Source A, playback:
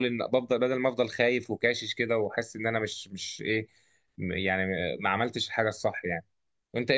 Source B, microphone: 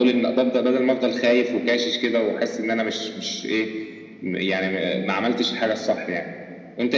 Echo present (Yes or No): Yes